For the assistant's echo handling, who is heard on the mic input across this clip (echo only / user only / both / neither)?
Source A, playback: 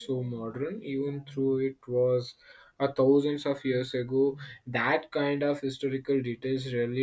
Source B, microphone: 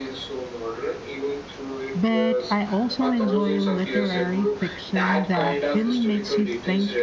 both